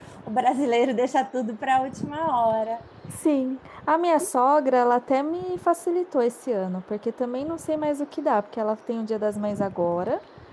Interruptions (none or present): none